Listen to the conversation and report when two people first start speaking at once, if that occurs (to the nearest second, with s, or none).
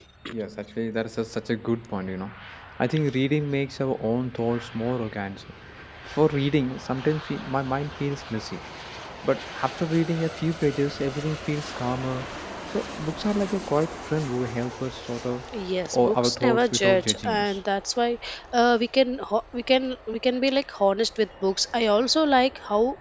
16 s